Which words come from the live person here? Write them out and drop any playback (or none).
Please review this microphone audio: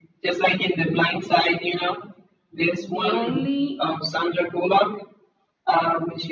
the only